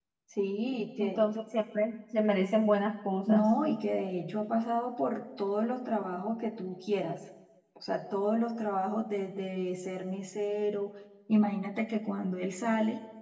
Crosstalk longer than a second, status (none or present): none